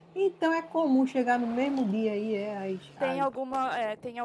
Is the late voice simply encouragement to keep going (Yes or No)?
No